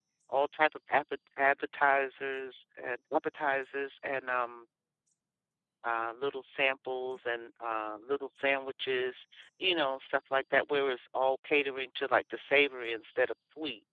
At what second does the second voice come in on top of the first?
none

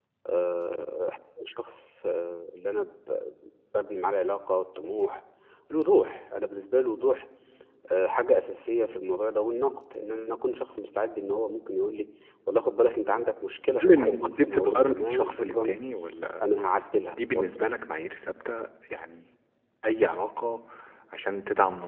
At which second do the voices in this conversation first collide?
13.8 s

